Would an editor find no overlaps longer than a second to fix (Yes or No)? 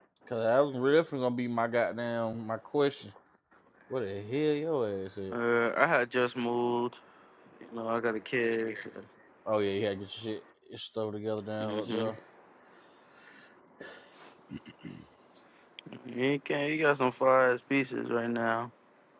Yes